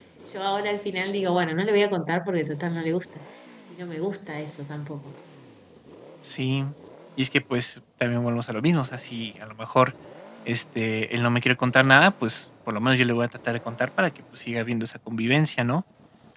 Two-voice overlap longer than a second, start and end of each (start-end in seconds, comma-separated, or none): none